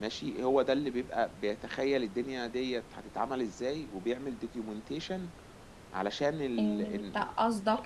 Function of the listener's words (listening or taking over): taking over